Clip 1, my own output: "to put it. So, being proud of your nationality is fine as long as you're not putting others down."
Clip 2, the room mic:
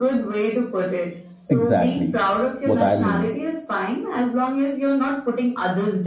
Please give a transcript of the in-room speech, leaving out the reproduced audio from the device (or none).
Exactly what I mean.